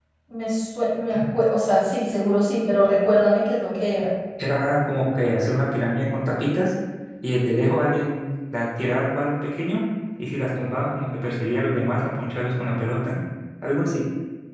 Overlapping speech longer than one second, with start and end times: none

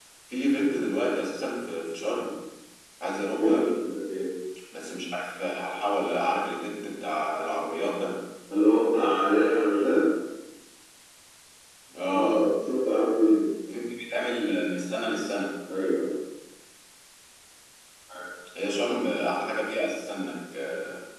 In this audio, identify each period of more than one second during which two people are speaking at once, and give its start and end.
none

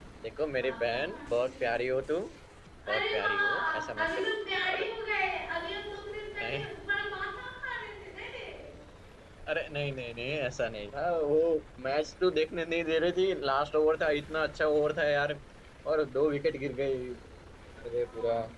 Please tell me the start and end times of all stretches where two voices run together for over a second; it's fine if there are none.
0.6-1.9, 2.9-4.3

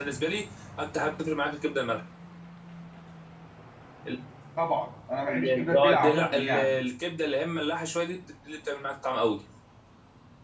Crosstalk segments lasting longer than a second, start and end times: 5.2-6.8

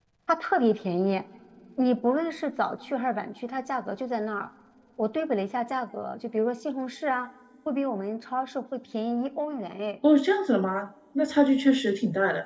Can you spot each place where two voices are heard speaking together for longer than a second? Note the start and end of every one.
none

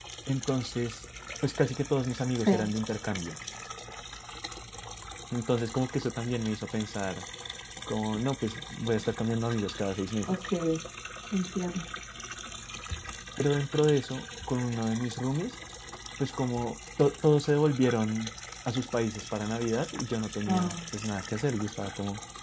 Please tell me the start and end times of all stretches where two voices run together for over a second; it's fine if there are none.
none

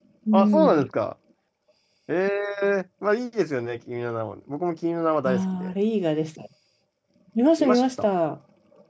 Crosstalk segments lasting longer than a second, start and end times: none

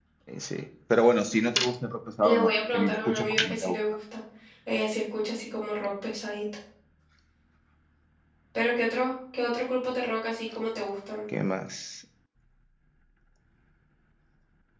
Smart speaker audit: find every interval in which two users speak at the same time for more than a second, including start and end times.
2.2-3.8

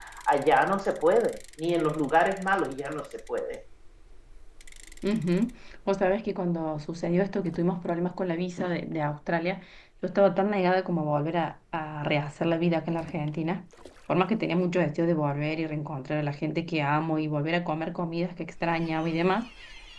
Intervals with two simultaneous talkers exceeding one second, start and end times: none

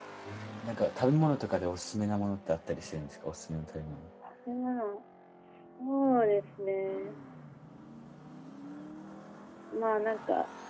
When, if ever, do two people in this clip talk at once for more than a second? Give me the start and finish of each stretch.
none

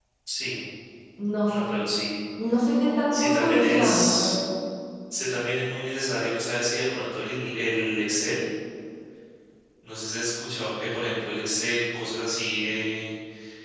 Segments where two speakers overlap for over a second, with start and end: 3.1-4.4

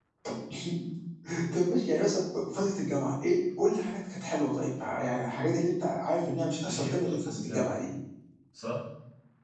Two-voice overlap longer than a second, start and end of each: 6.6-7.9

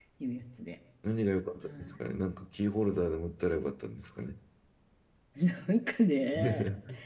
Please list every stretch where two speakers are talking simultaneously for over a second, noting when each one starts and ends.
none

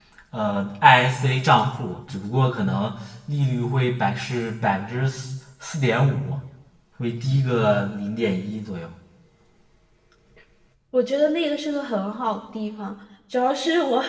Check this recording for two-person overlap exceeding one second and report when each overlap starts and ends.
none

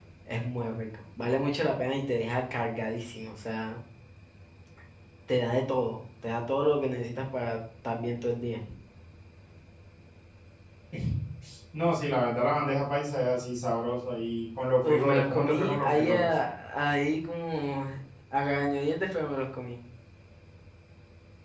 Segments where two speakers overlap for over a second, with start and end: 14.8-16.3

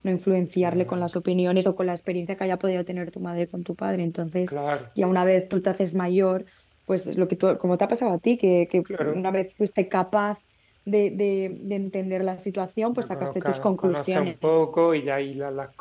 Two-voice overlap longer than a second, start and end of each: 13.0-14.5

